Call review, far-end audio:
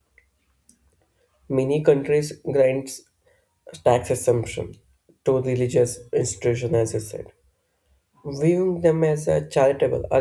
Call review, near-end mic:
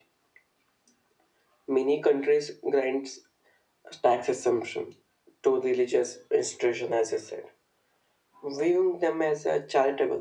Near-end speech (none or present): none